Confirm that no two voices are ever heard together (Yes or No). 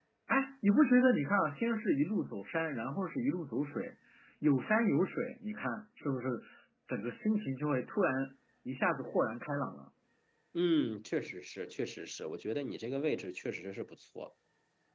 Yes